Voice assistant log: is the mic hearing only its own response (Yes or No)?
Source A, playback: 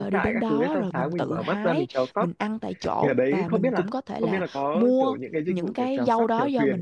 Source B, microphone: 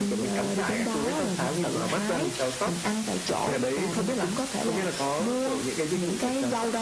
Yes